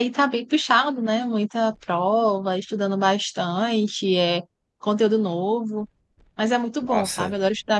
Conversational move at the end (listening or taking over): listening